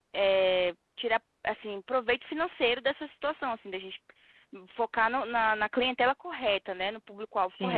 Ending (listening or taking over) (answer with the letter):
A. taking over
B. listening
A